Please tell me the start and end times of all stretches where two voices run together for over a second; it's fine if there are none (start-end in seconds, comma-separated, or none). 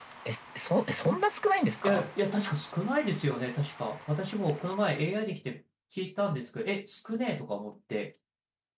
none